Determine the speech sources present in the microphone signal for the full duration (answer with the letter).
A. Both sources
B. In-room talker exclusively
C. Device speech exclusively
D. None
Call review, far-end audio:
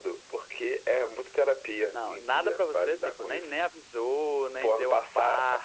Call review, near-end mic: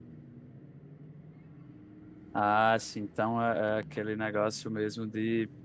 B